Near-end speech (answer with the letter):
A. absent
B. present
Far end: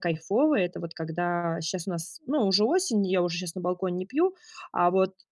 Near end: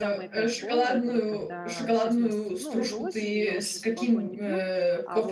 B